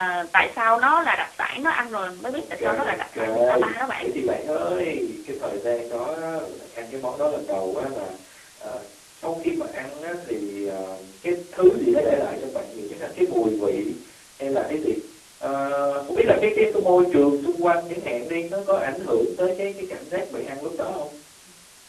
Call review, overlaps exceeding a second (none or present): present